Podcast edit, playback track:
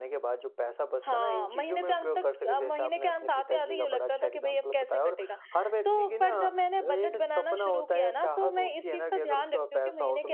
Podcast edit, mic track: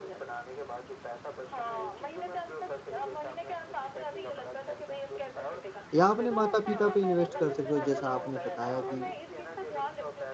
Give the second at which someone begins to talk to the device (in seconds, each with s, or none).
5.9 s